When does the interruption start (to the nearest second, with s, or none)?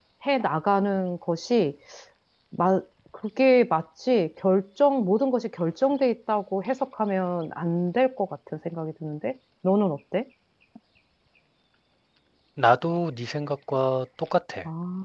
none